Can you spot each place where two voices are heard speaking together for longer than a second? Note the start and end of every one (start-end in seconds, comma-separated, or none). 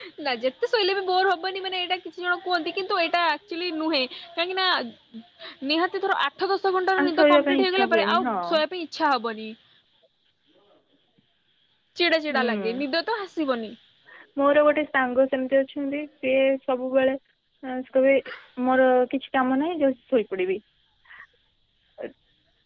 7.0-8.4